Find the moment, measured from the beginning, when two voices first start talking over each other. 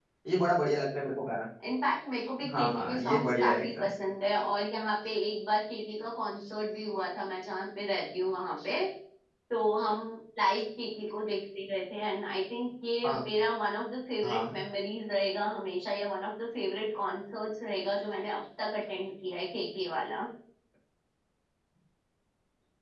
3 s

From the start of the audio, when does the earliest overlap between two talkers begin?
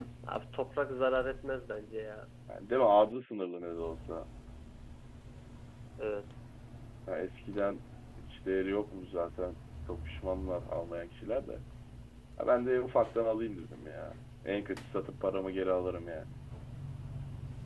none

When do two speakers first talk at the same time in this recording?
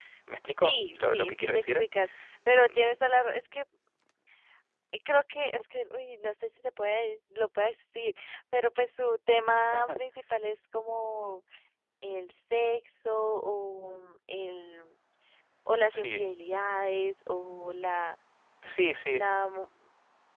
1 s

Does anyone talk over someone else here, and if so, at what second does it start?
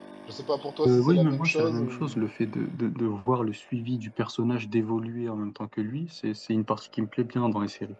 1 s

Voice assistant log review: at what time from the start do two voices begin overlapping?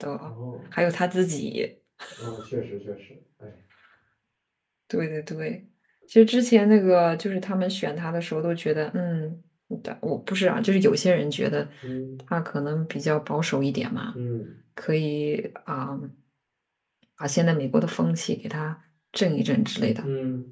none

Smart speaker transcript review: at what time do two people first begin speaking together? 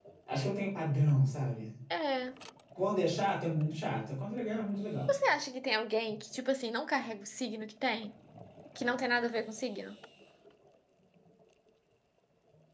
none

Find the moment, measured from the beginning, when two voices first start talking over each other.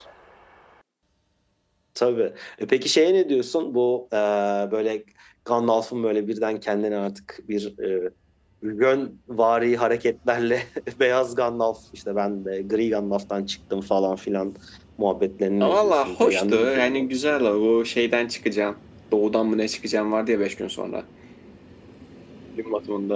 16 s

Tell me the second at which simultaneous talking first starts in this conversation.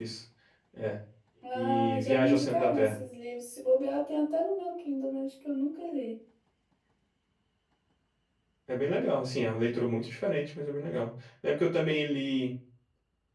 2 s

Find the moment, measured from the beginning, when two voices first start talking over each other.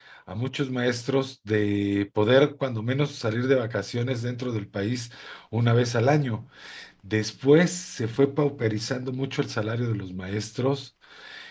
none

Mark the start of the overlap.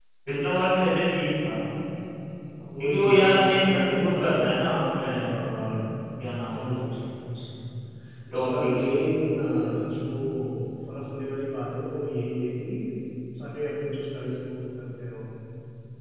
3 s

